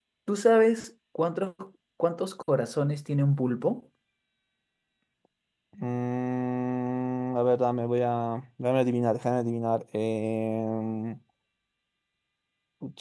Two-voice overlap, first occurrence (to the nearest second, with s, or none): none